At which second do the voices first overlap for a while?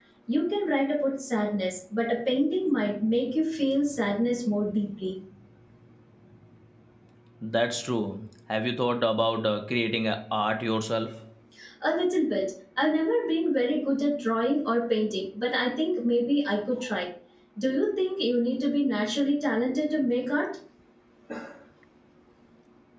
none

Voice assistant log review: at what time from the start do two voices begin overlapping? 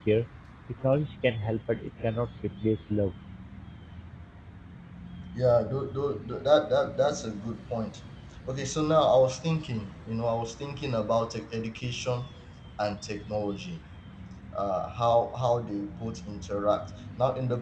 none

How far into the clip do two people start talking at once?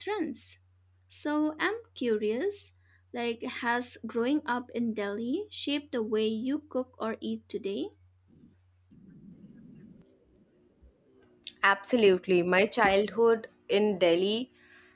none

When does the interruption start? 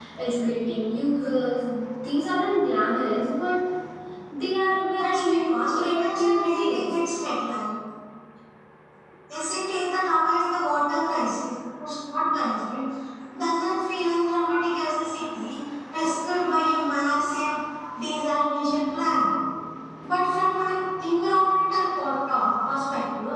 4.9 s

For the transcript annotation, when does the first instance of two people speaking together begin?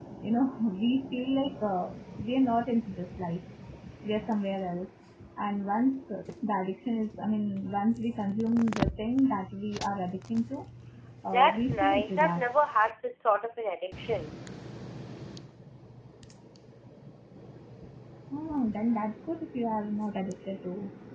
11.3 s

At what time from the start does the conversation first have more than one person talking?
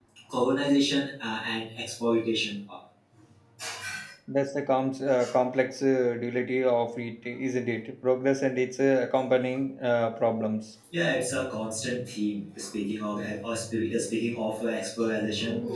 none

